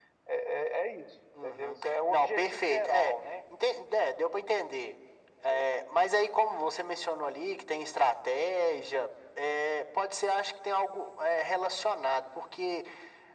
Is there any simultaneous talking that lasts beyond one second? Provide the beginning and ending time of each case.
1.4-3.1

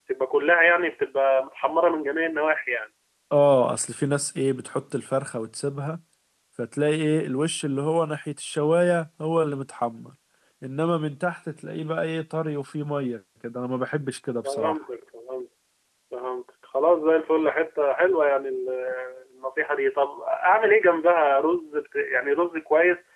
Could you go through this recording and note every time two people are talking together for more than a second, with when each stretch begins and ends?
none

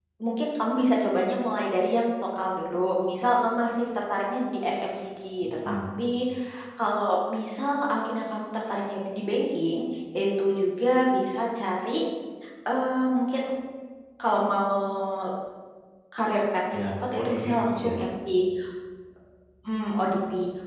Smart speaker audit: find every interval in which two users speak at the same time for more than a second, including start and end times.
16.7-18.0

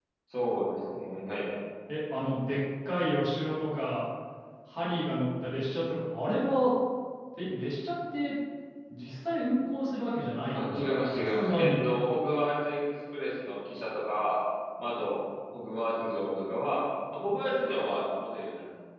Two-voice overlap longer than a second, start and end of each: 10.6-11.8

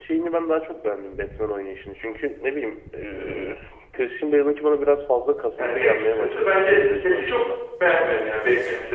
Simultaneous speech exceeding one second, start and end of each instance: 5.6-7.4

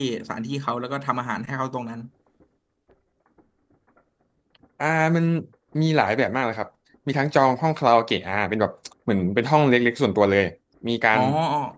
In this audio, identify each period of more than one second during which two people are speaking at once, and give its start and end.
none

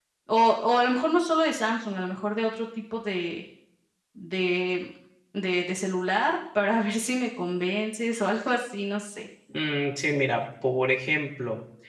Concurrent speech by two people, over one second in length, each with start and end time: none

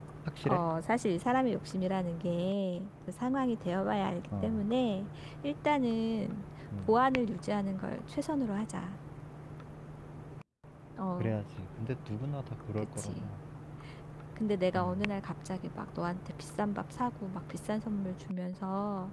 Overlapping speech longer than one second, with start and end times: none

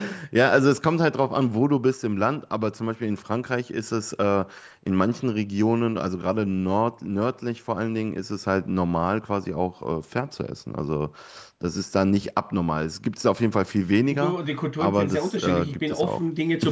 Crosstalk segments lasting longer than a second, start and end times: 14.8-16.2

